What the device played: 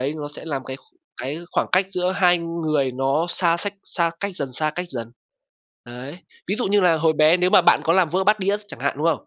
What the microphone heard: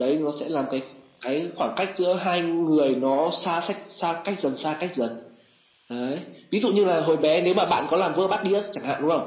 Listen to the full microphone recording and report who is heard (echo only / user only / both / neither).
echo only